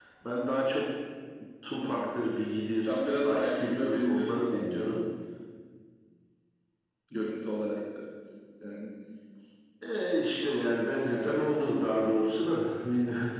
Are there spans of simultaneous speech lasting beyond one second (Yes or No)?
Yes